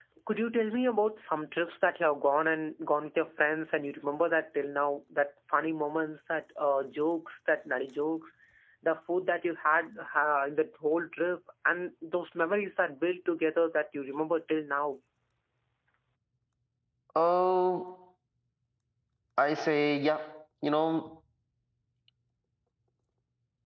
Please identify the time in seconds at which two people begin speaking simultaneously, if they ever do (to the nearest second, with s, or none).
none